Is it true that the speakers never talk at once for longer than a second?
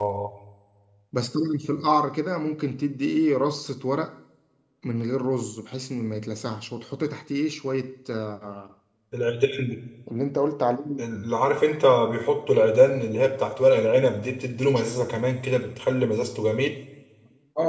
Yes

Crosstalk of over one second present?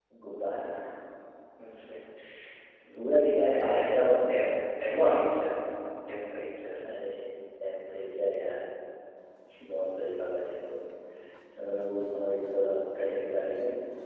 Yes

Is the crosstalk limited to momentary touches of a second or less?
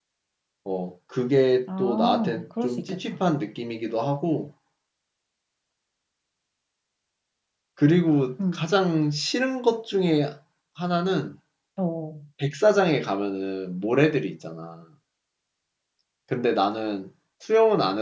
No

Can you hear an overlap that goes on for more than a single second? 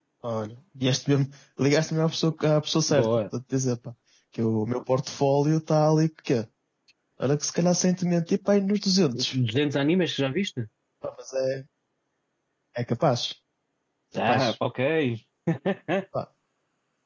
No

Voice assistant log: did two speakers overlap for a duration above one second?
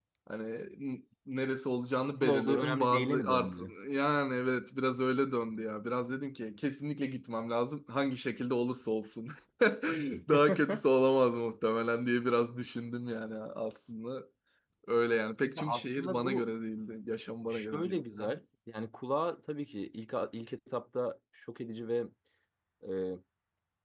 Yes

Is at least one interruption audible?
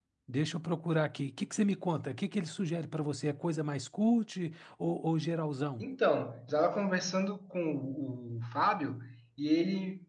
No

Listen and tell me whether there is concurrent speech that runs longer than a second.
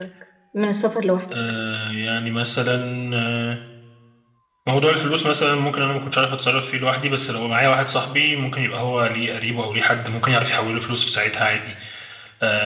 No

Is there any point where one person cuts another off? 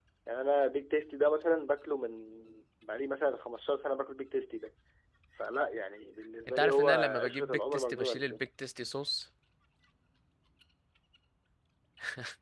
Yes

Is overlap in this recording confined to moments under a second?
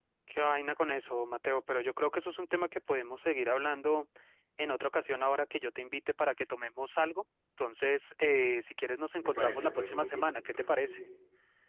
No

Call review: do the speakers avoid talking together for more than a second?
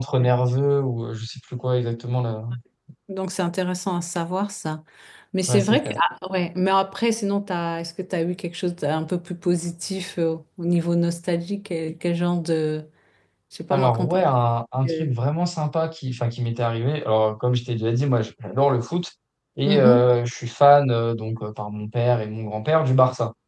Yes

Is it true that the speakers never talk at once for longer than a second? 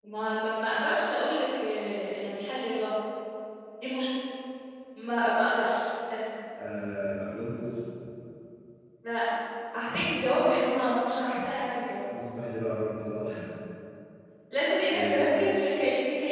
Yes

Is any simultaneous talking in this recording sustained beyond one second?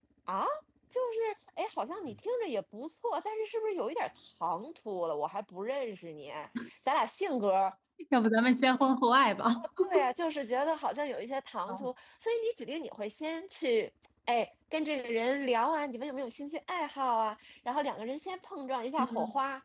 No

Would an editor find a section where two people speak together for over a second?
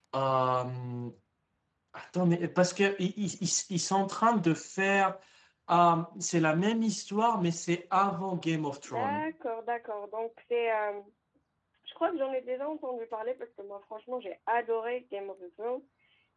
No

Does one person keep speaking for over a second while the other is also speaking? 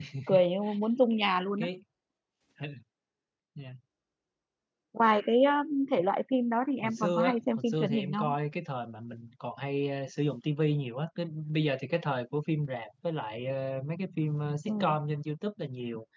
Yes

